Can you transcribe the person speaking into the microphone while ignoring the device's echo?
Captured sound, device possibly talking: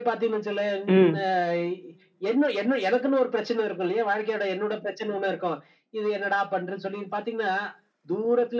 ம்.

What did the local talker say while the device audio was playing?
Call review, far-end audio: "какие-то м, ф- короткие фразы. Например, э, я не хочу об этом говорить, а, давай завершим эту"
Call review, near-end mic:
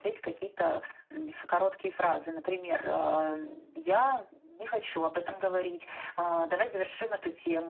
none

